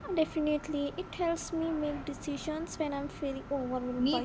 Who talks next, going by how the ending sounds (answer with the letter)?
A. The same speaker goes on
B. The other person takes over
B